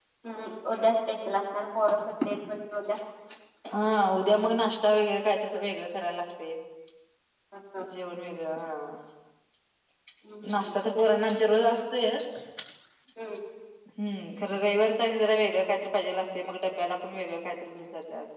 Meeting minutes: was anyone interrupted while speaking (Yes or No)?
No